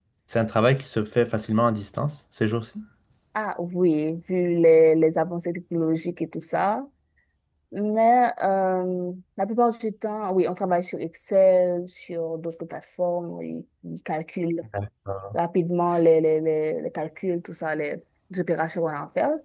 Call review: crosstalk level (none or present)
none